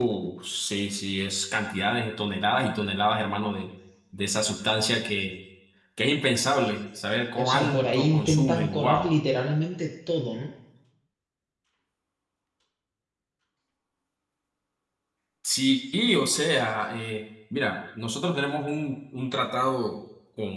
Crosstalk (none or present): present